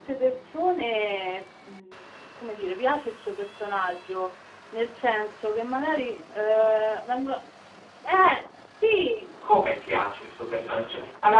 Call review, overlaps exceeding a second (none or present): none